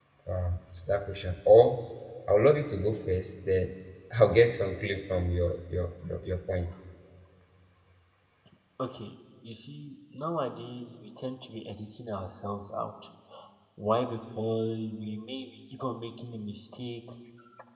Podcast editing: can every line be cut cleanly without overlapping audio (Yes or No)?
Yes